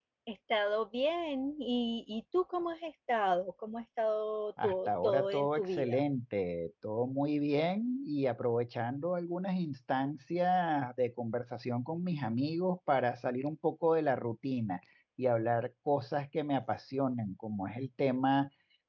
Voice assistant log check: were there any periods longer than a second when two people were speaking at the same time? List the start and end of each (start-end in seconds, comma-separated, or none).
4.6-6.0